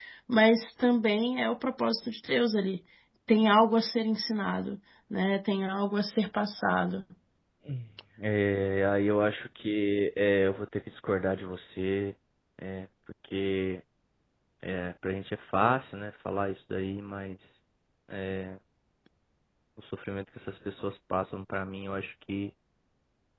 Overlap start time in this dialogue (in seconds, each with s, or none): none